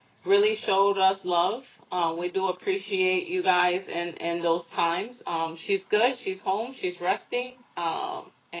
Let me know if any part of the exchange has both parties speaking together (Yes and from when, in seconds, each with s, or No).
No